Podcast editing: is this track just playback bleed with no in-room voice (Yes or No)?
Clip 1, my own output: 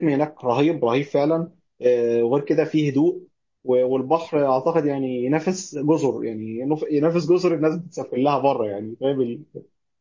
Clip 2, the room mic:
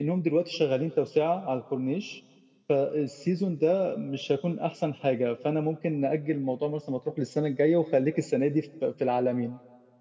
No